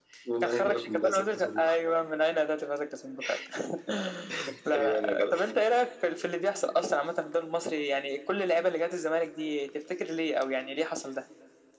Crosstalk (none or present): present